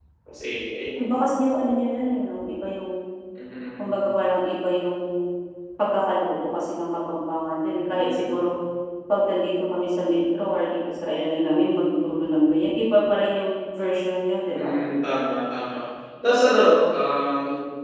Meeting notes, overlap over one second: none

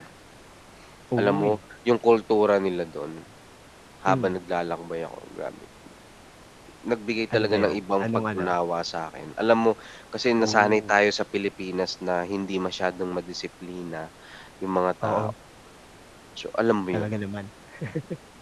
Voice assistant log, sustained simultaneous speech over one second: present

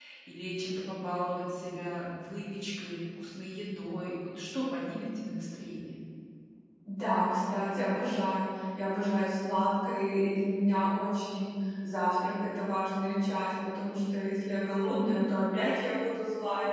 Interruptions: none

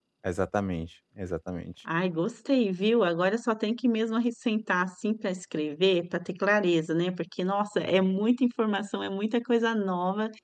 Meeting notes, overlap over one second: none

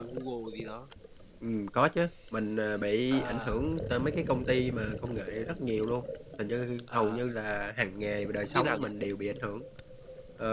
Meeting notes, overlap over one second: none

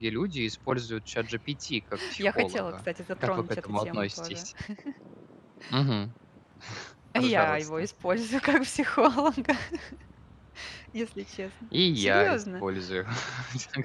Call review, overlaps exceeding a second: present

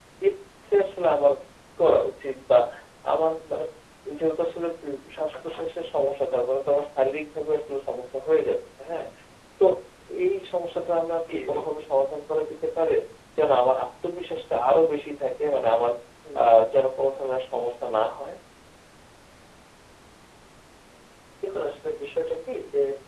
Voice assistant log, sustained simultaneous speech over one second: none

